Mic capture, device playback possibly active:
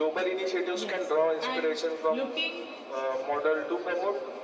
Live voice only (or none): Yes. And looking